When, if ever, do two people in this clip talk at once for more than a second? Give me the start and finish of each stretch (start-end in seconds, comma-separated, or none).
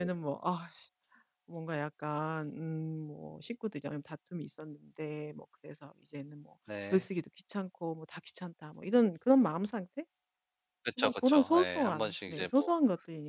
11.0-12.7